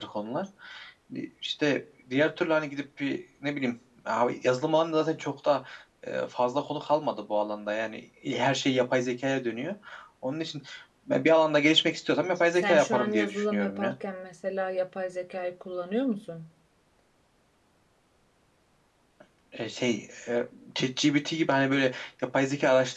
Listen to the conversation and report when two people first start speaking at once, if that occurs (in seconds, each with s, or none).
12.6 s